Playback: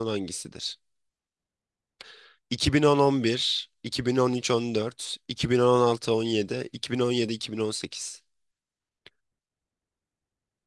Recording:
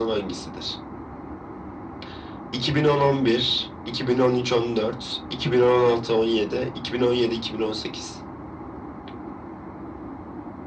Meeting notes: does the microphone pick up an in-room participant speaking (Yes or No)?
No